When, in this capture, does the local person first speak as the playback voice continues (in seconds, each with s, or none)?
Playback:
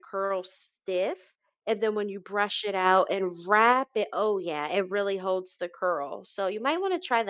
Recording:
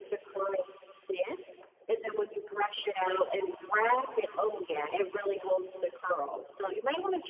none